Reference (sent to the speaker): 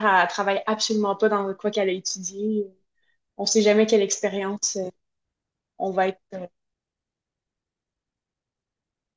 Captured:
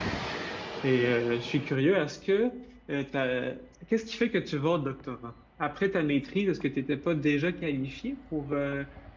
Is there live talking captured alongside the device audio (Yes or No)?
Yes